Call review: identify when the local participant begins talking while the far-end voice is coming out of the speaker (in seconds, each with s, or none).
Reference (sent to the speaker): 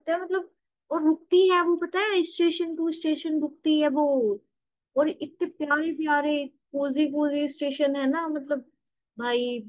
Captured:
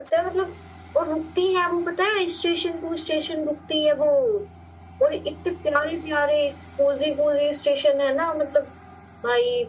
none